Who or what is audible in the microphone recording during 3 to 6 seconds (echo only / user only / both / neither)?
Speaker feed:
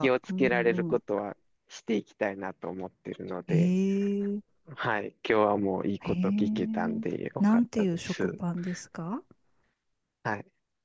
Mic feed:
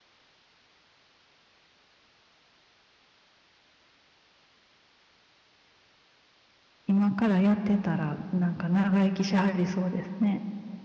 neither